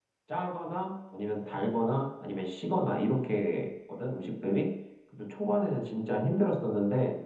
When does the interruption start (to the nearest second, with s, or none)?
none